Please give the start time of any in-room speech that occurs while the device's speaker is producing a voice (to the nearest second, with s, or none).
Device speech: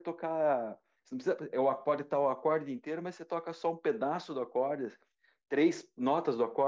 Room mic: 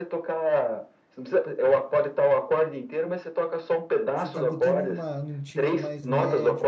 4 s